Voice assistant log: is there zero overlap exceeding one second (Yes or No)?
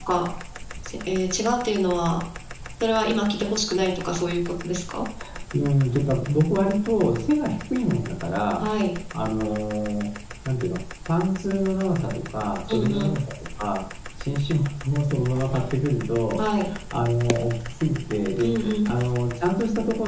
Yes